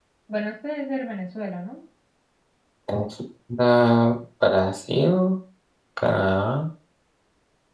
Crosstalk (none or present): none